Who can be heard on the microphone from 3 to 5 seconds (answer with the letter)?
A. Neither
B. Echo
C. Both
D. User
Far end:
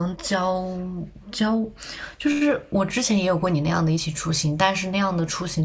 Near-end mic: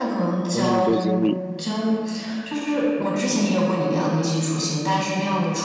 B